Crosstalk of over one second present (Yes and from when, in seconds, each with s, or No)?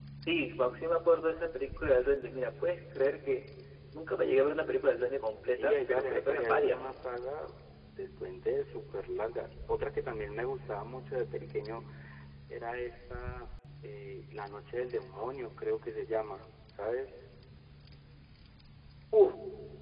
Yes, from 5.5 s